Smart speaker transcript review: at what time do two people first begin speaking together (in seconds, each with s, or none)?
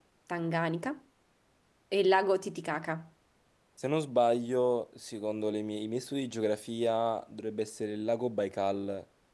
none